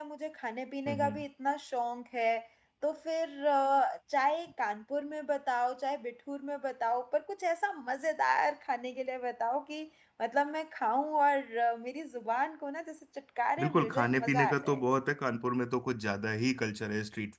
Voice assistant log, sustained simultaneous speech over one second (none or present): present